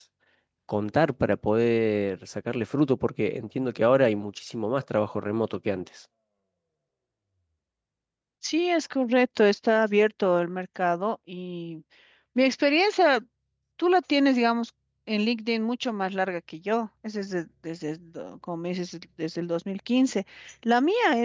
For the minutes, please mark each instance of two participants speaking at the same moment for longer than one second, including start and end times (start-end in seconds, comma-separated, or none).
none